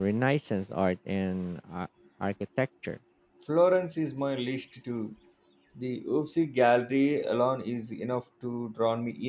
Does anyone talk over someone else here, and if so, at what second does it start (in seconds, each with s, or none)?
none